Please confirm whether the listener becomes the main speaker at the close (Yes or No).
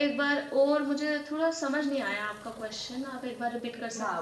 Yes